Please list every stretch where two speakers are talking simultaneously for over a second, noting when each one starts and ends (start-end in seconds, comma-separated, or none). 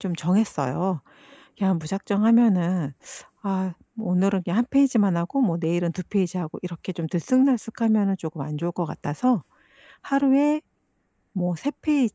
none